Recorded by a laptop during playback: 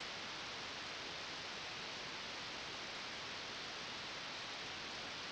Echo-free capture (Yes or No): Yes